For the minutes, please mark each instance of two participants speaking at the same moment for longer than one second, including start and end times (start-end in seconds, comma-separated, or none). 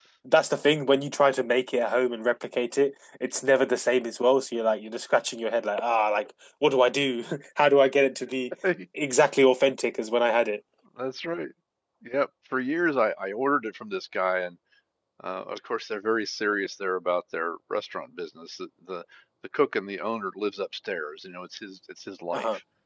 none